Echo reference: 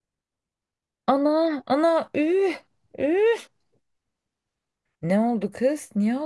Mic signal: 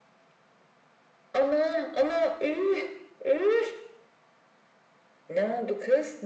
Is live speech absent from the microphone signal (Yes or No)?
Yes